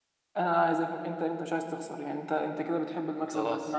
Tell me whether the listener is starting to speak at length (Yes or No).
No